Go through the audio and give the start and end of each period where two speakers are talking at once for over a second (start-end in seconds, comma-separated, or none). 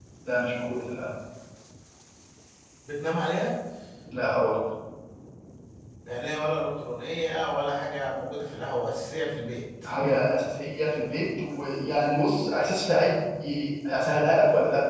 none